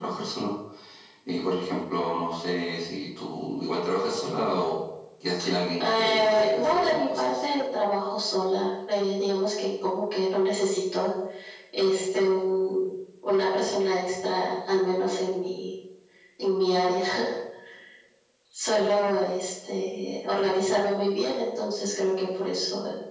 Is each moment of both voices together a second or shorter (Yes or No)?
No